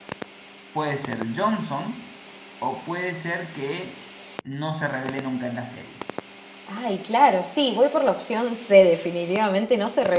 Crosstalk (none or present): none